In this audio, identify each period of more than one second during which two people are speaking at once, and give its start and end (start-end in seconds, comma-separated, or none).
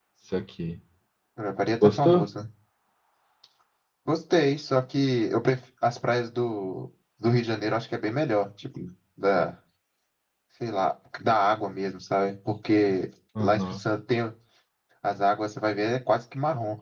none